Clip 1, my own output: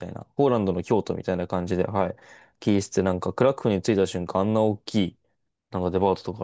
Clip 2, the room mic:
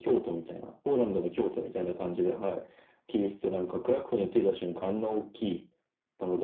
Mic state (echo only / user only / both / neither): echo only